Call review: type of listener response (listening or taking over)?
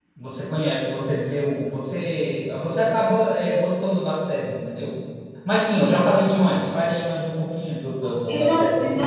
taking over